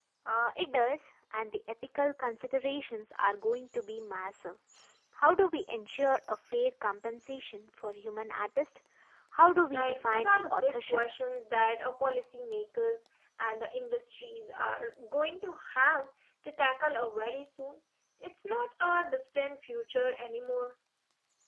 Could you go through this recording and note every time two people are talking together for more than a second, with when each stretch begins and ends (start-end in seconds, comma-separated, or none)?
9.7-11.0